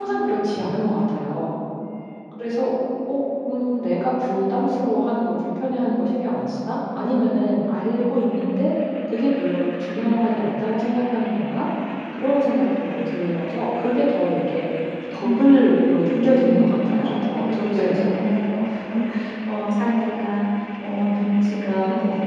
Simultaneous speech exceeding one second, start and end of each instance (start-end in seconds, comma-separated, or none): 15.2-18.1